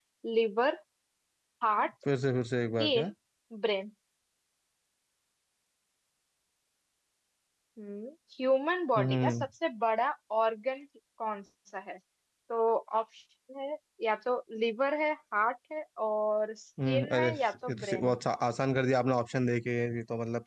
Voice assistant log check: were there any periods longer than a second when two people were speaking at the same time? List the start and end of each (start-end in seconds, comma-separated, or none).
16.8-18.2